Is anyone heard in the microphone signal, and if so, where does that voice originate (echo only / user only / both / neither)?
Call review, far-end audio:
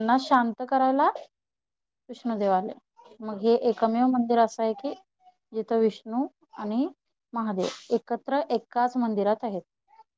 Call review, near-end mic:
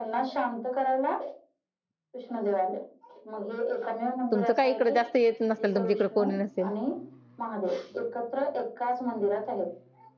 both